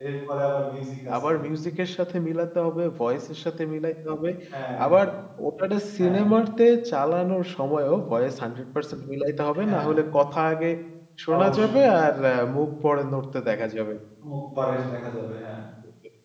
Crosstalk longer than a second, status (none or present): none